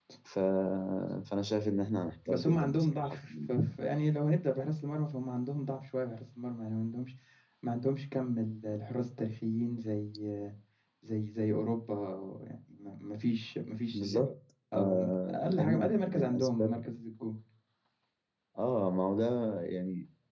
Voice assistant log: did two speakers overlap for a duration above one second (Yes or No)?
Yes